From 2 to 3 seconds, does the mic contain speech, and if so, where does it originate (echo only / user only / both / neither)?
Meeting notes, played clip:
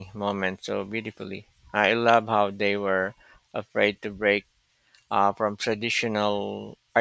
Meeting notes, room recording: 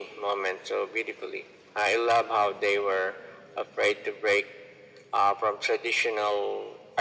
echo only